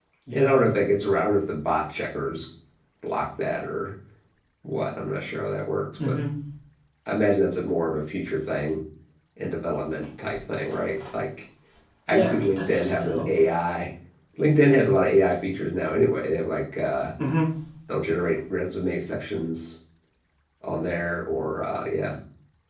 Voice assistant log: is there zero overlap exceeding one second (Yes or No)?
No